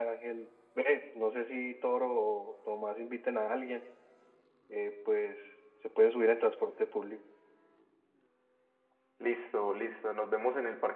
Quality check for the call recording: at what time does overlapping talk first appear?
none

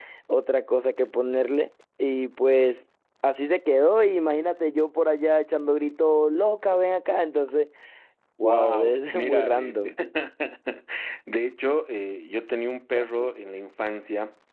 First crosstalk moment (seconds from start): 8.4 s

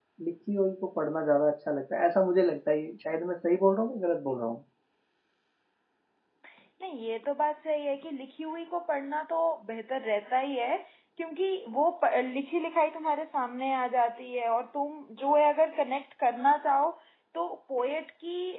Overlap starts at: none

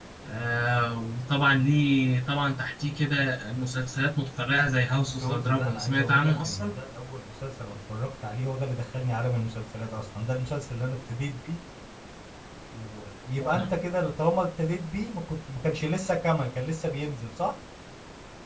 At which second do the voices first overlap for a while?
4.9 s

